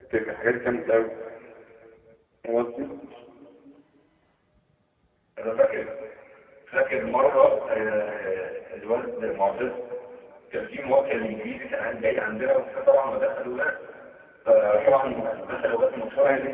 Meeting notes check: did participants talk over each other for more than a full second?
No

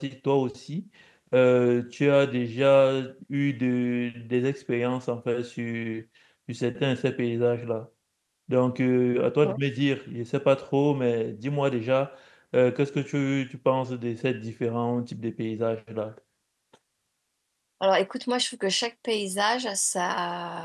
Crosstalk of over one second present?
No

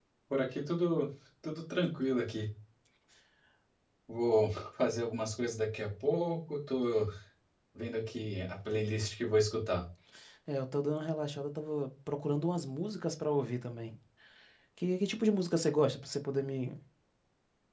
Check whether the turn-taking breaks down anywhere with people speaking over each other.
No

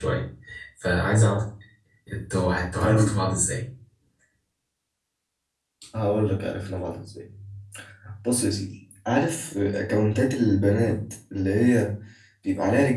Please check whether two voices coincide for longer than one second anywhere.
No

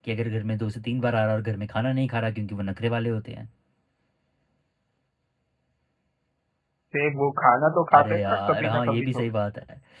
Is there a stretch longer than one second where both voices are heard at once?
Yes, from 7.9 s

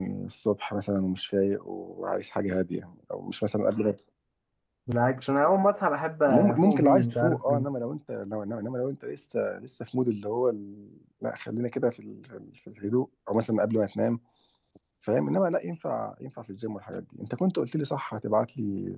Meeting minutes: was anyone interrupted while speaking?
Yes, from 6.3 s

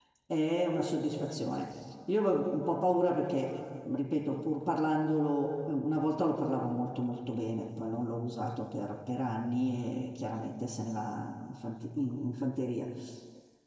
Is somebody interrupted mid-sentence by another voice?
No

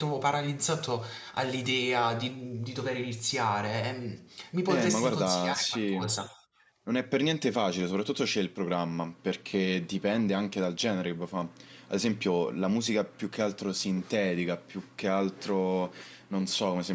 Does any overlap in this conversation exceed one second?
Yes, from 4.7 s

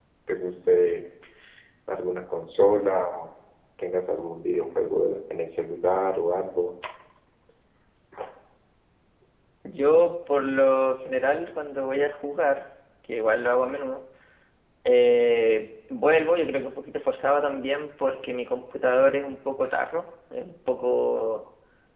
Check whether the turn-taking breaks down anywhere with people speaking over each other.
No

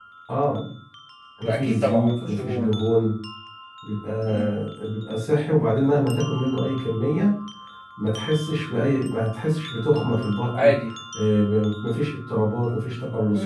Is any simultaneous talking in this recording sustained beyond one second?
Yes, from 1.4 s

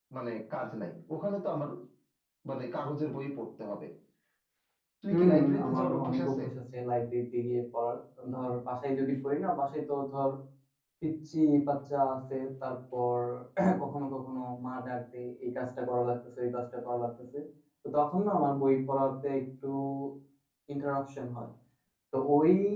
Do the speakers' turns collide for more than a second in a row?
Yes, from 5.1 s

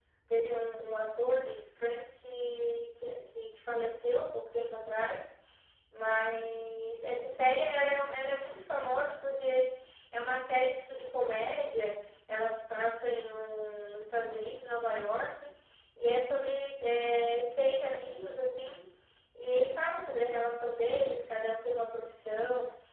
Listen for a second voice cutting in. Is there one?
No

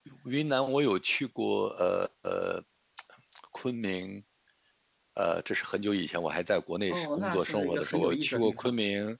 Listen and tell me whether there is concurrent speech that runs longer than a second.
Yes, from 6.9 s

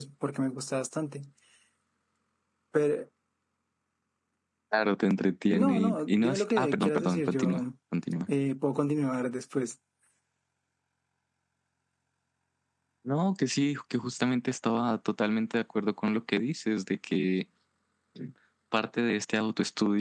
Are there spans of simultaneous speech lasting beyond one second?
Yes, from 5.5 s

